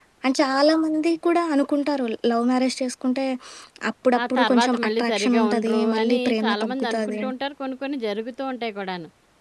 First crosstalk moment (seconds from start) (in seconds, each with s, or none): 4.3 s